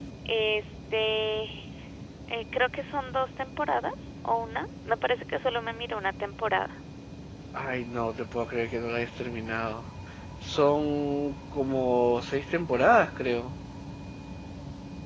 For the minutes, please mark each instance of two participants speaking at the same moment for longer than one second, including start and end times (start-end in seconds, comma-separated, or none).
none